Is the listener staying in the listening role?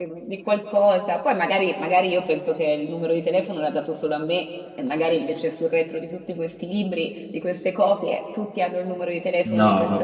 No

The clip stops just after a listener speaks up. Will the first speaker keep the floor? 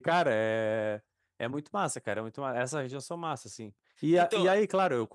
Yes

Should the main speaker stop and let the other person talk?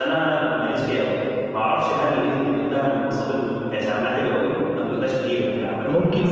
Yes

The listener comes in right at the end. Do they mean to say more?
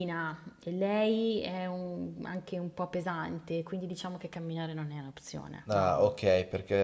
Yes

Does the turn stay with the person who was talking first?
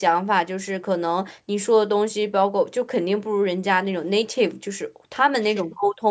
Yes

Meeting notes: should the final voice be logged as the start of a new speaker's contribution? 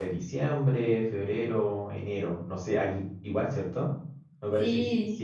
Yes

